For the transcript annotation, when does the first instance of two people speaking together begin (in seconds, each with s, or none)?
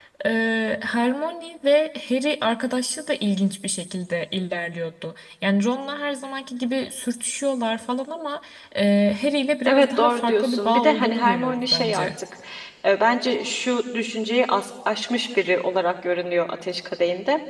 9.6 s